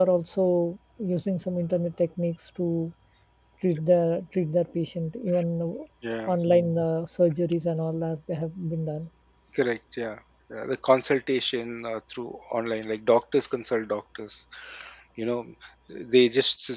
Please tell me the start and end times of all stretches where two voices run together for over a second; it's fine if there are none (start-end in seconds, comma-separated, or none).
none